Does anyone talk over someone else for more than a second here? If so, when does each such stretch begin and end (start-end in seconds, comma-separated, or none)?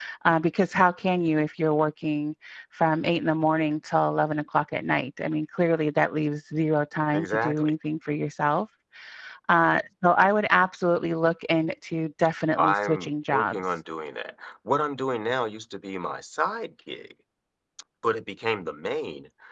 12.6-13.8